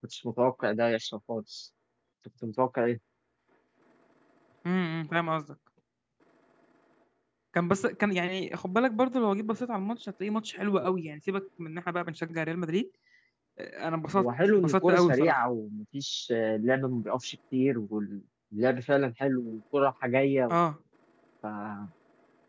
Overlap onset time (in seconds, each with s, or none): 14.2 s